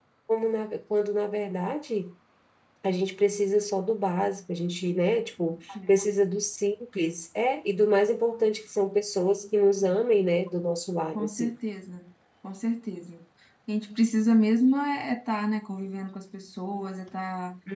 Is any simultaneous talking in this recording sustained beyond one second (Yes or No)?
No